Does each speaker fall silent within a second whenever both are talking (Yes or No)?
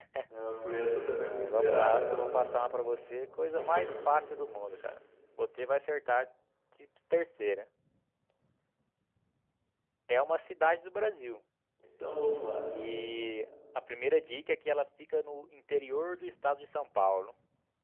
No